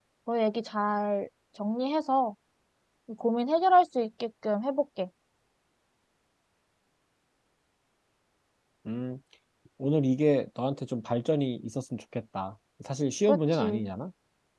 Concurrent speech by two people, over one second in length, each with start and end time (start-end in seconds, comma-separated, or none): none